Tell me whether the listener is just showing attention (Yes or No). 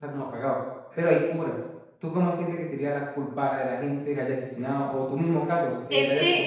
No